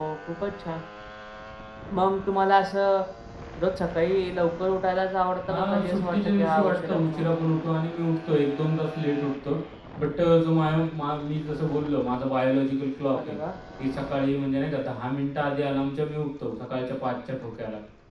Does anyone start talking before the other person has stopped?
Yes, from 5.5 s

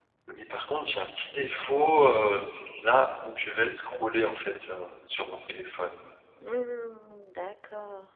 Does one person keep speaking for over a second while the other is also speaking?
No

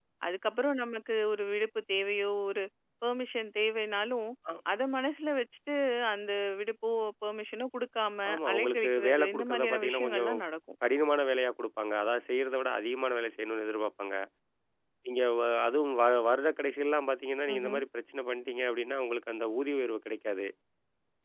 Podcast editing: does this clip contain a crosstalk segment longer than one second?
Yes, from 8.3 s

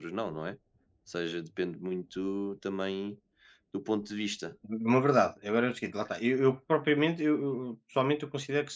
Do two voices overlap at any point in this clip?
No

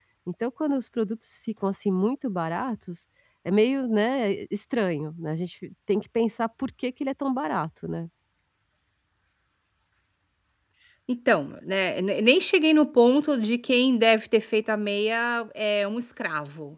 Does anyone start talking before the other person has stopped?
No

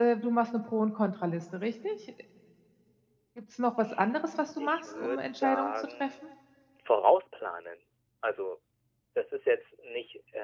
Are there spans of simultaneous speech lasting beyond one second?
Yes, from 4.6 s

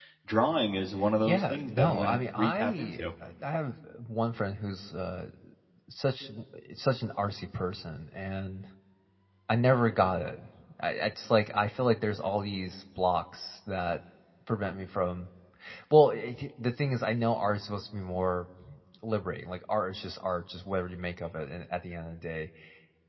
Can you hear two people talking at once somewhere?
Yes, from 1.2 s

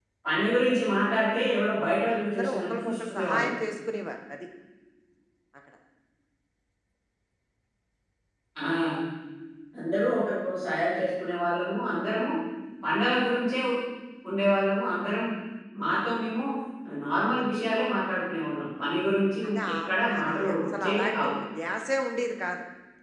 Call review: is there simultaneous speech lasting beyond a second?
Yes, from 2.1 s

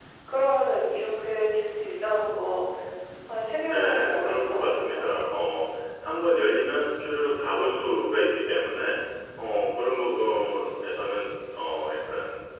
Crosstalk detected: Yes, from 3.7 s

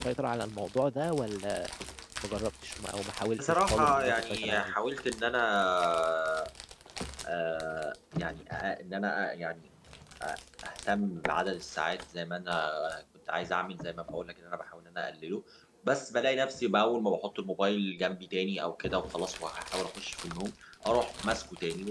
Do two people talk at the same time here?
Yes, from 3.4 s

